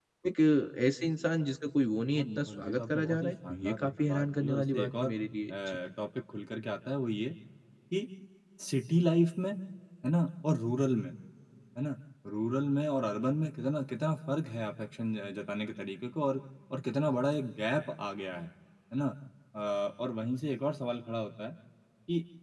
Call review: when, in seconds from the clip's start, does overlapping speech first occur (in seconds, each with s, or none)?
2.1 s